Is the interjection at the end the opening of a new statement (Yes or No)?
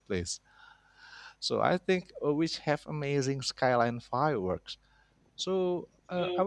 No